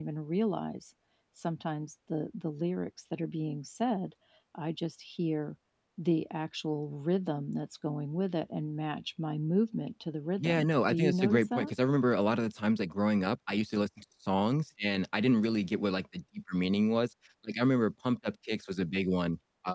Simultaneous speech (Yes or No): Yes